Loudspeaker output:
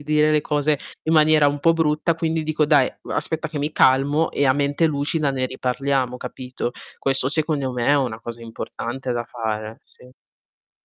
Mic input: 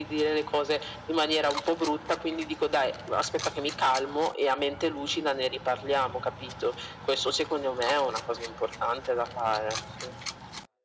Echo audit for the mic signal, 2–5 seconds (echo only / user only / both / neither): echo only